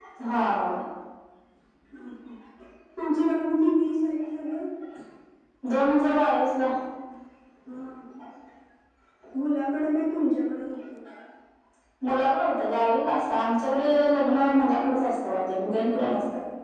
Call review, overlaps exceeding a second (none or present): none